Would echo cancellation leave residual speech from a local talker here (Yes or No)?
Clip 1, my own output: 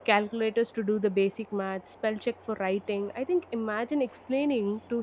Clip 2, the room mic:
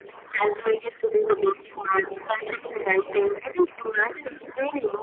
No